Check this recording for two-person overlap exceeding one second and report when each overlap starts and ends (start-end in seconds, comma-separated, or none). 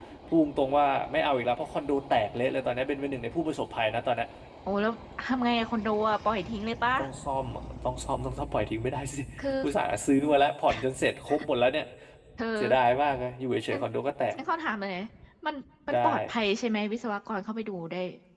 none